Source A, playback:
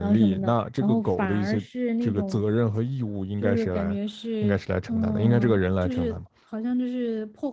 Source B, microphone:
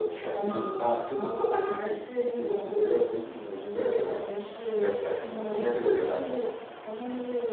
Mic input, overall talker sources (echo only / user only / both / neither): echo only